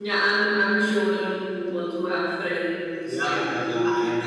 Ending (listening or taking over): taking over